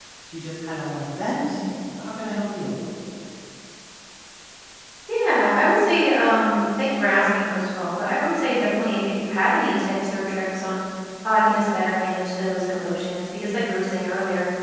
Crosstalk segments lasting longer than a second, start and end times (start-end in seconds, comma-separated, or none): none